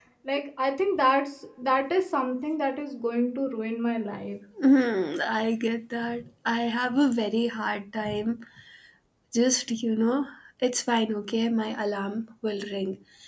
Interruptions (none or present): none